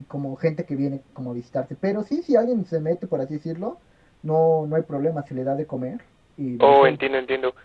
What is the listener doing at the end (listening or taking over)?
taking over